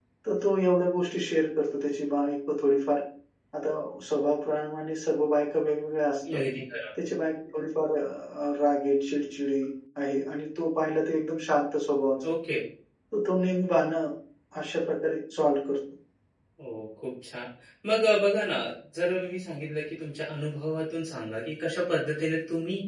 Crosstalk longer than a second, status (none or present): none